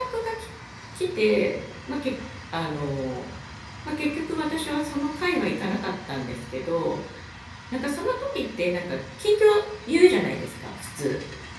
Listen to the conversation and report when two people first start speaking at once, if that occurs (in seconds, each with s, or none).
none